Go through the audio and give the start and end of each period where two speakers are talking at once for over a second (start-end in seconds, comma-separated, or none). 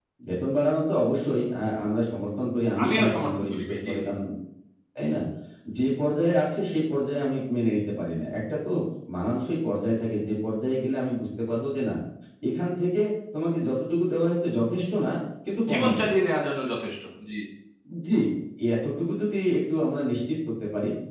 2.8-4.1